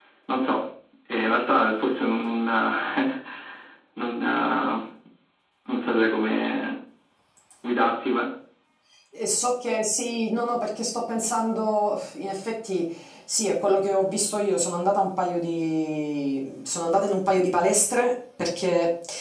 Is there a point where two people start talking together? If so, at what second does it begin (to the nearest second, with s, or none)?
none